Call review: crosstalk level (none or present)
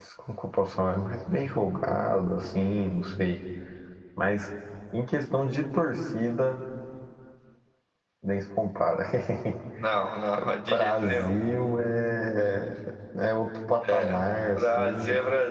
present